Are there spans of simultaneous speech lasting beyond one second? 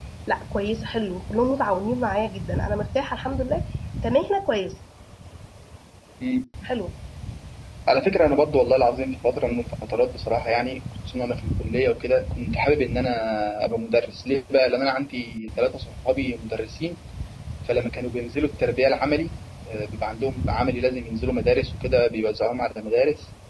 No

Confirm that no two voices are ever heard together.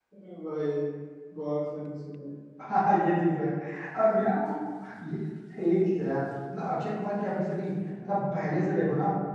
Yes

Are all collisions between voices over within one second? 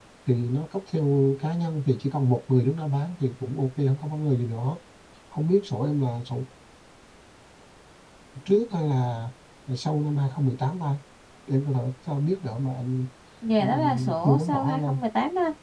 No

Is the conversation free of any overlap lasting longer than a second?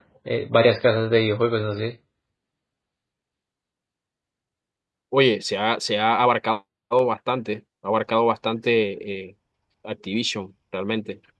Yes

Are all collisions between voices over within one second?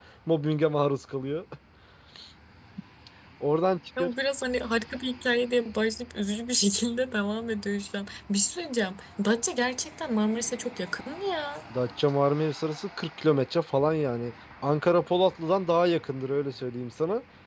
Yes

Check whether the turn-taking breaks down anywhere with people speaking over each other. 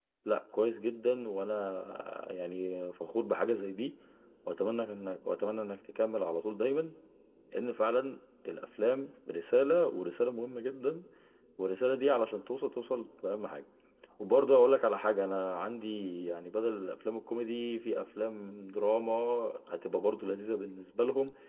No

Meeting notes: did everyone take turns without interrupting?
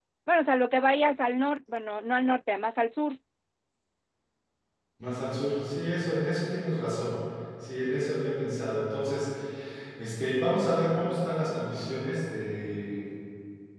Yes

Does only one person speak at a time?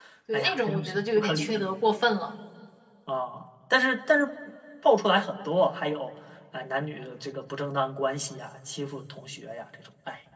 No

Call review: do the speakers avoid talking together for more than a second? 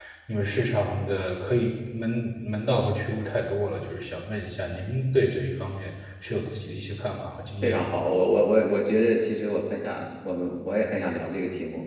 Yes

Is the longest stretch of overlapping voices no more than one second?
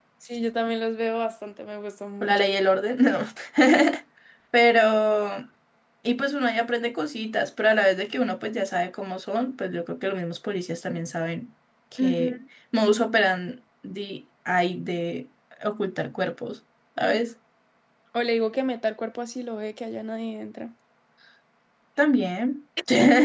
Yes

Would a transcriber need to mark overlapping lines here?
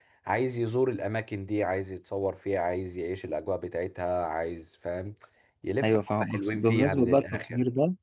Yes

